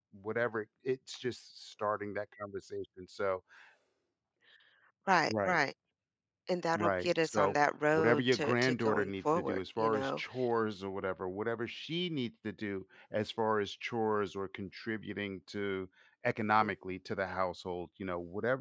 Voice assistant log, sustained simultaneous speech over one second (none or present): present